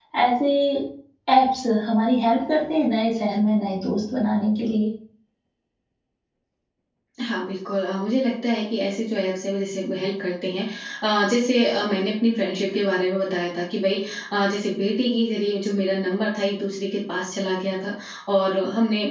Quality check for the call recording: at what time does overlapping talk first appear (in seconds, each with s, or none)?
none